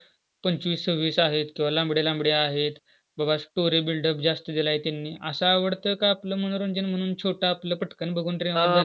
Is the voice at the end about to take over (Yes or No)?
Yes